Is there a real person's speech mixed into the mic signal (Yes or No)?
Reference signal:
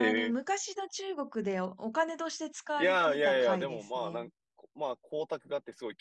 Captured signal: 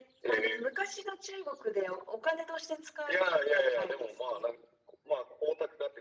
No